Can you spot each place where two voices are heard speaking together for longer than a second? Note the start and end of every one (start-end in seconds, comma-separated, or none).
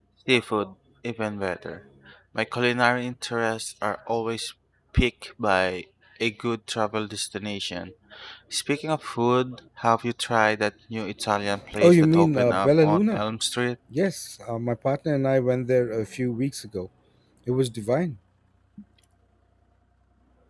11.8-13.2